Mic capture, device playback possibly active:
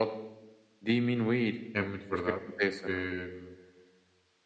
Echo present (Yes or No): Yes